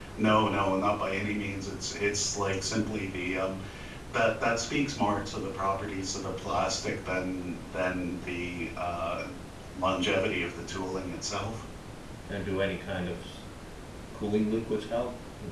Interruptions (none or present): none